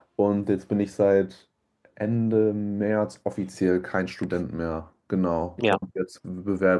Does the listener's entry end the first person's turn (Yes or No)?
No